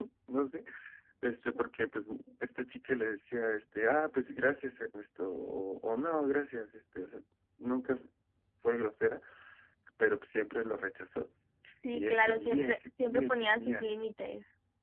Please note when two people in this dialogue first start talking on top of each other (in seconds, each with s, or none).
11.9 s